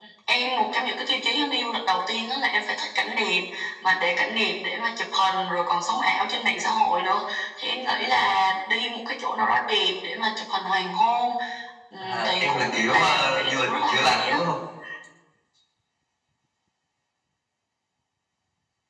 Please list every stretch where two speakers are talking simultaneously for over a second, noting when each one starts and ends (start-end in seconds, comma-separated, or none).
12.0-14.3